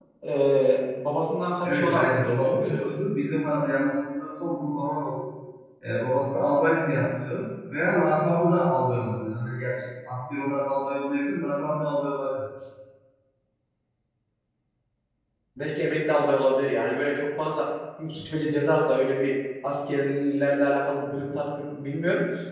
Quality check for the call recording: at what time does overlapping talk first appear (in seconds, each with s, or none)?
1.6 s